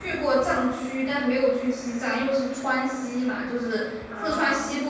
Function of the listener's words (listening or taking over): listening